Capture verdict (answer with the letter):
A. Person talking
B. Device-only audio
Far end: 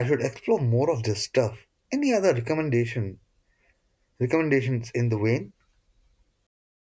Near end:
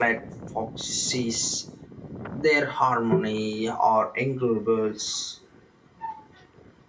A